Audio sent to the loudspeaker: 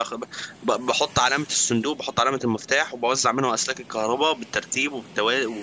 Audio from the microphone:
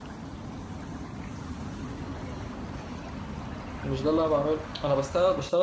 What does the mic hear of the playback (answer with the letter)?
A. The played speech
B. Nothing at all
B